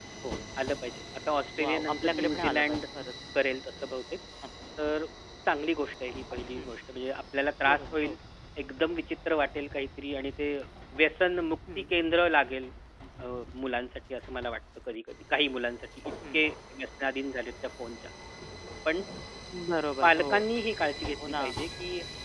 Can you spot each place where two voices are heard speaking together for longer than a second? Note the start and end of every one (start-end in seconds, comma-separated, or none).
1.6-2.9